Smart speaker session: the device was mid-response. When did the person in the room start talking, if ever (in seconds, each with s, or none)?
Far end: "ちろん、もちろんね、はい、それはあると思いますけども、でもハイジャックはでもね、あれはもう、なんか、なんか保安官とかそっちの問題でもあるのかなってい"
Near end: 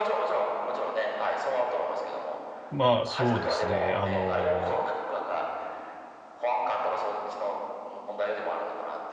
2.8 s